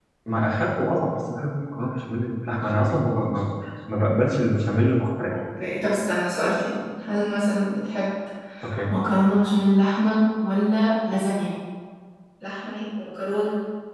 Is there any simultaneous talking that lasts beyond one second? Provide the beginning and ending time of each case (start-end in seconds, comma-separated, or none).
none